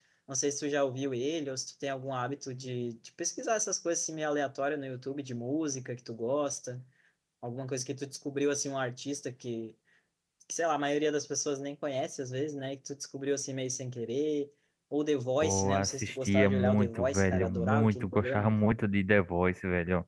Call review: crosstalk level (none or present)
present